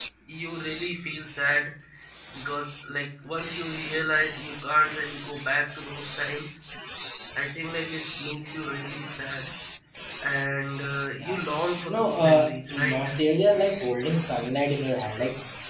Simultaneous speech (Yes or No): Yes